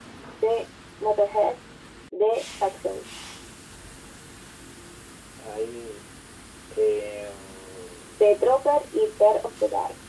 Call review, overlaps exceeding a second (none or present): none